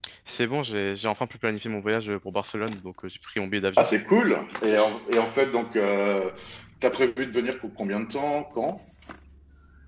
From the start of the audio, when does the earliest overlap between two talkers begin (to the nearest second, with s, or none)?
none